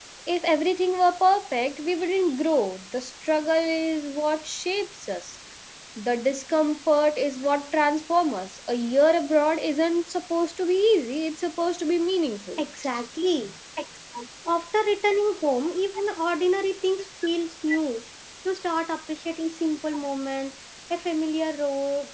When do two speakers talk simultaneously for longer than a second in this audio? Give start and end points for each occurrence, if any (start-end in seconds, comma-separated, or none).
none